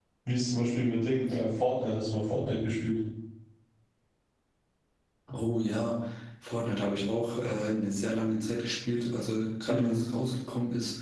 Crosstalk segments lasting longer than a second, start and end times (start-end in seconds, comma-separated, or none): none